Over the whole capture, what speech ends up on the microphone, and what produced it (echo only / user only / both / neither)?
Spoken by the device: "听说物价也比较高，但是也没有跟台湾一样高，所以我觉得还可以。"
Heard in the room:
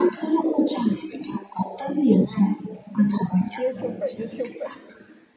both